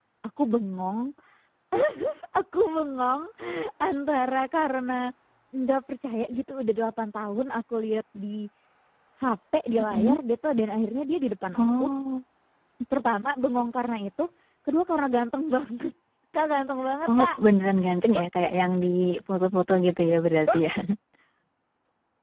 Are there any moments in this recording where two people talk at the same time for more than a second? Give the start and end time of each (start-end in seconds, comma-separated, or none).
none